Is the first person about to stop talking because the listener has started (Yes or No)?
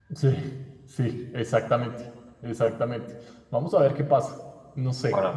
No